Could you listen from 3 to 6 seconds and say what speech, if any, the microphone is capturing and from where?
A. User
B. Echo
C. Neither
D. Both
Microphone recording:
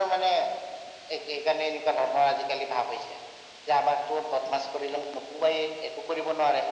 B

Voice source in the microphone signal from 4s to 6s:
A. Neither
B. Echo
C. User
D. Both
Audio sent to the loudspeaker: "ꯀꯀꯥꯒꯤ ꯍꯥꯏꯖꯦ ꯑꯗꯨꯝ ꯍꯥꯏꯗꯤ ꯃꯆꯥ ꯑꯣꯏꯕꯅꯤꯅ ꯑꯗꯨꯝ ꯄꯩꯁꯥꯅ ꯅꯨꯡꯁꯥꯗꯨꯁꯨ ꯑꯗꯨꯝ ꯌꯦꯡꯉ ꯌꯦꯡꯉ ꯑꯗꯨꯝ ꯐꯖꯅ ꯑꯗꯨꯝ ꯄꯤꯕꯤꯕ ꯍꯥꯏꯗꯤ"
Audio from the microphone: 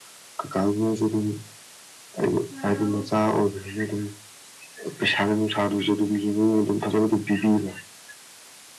B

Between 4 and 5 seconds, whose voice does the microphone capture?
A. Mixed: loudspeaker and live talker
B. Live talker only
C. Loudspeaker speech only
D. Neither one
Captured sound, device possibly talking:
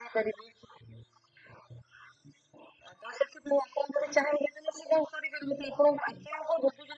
C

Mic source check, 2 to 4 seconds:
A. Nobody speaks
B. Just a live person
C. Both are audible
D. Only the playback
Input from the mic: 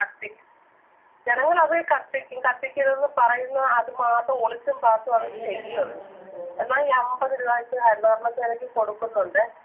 D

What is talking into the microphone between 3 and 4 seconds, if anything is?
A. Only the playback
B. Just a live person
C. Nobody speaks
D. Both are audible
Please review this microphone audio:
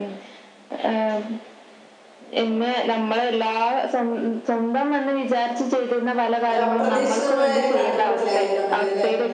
A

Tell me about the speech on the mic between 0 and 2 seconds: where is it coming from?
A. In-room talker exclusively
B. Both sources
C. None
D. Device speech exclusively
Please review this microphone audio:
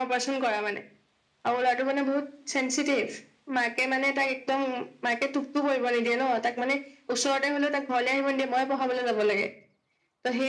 D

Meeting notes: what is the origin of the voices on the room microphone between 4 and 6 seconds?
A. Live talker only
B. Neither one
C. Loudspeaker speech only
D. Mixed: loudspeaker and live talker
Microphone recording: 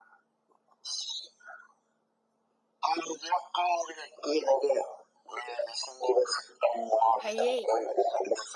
C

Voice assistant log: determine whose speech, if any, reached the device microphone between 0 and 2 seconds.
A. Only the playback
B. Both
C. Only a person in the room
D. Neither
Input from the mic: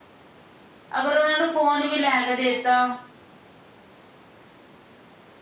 C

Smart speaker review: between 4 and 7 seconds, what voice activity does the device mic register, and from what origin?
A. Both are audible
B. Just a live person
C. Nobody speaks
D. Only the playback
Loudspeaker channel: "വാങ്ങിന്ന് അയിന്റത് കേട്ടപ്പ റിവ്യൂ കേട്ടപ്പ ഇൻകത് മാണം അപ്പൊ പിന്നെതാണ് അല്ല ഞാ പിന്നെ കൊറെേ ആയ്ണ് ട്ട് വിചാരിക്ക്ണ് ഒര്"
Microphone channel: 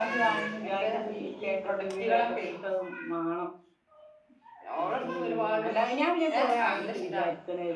A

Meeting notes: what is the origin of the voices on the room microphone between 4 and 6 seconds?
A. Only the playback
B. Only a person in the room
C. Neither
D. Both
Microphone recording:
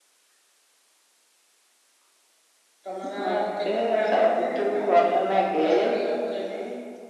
D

